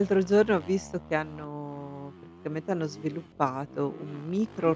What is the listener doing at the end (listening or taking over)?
listening